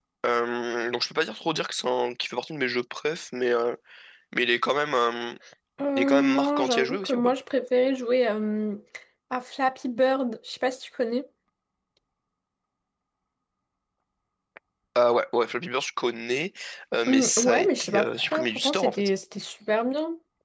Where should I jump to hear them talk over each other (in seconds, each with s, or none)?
6.0 s